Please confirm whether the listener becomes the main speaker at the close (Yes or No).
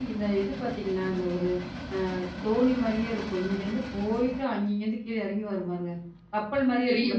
Yes